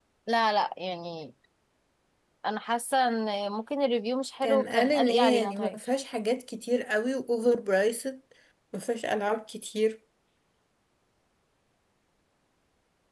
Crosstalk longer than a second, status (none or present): present